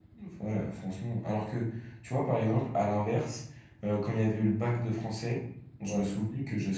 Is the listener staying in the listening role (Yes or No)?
Yes